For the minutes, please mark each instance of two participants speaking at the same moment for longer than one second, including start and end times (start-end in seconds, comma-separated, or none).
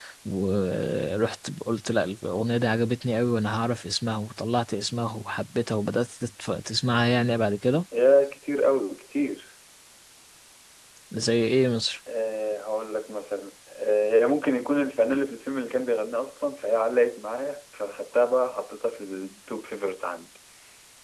none